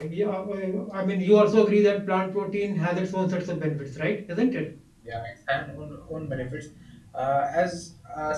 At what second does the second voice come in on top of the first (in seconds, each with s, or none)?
none